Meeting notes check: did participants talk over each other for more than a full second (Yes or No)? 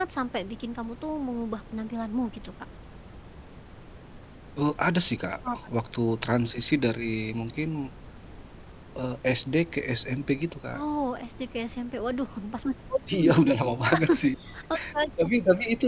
No